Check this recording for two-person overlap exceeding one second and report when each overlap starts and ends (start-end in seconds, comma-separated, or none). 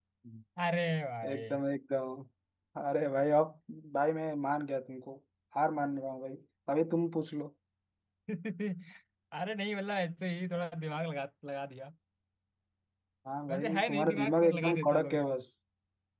13.5-15.2